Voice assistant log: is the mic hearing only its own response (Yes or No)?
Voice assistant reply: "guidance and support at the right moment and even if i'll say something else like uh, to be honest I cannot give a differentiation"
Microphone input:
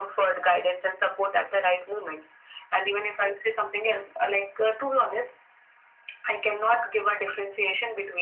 Yes